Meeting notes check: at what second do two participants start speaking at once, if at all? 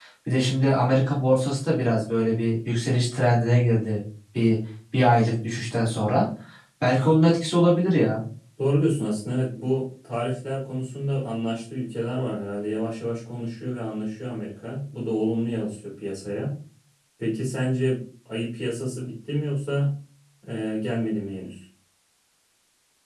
none

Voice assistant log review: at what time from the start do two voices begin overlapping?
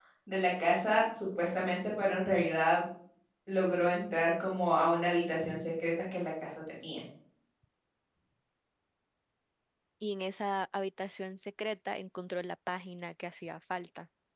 none

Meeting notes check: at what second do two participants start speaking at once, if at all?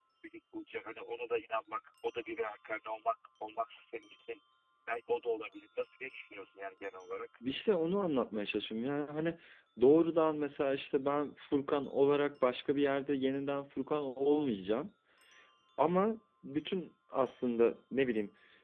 none

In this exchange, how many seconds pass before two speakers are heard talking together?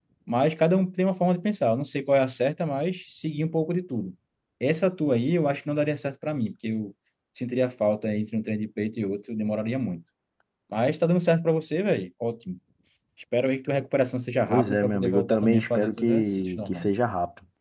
14.5 s

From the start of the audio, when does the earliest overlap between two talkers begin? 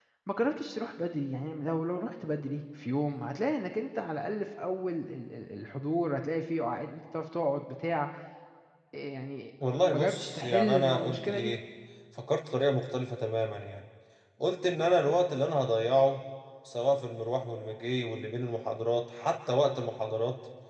9.7 s

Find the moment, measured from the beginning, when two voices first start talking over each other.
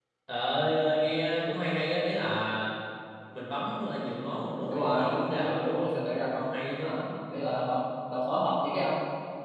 4.7 s

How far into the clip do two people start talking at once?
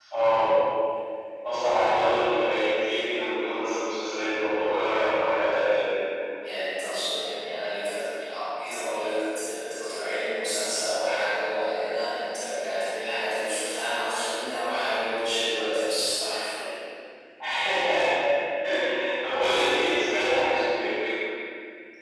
none

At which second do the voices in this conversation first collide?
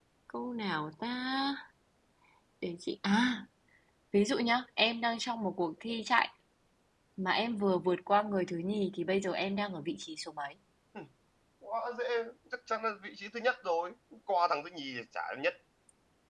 none

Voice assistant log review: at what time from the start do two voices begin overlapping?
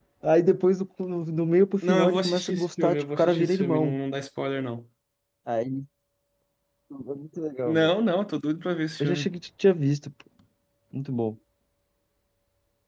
1.9 s

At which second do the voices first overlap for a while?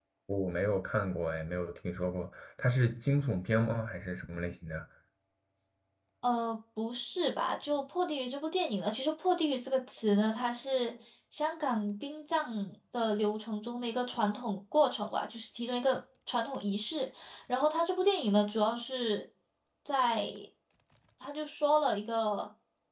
none

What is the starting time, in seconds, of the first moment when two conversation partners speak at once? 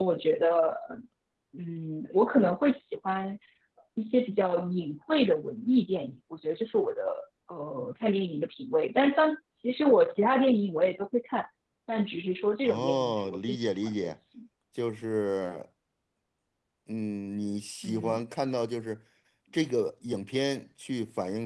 12.6 s

